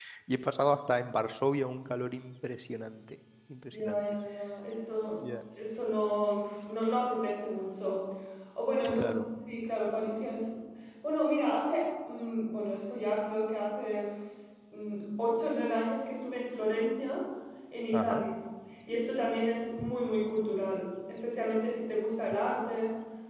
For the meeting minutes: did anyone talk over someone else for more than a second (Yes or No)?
No